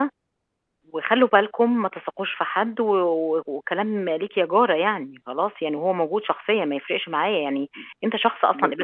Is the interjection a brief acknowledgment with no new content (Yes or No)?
No